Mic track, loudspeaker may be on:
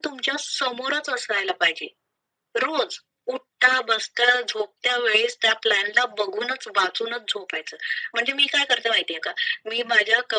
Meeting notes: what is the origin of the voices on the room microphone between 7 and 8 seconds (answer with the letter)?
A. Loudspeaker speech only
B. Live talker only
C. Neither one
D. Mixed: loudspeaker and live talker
A